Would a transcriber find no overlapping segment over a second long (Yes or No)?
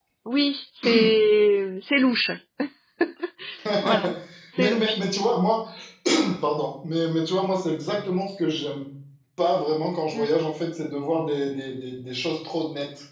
Yes